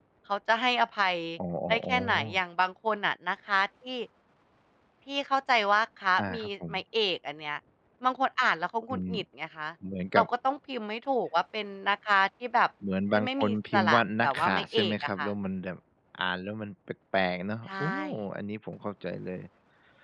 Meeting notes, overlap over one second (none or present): present